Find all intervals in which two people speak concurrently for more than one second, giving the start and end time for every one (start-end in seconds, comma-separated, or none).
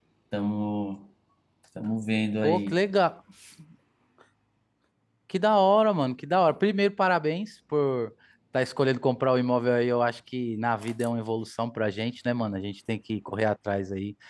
none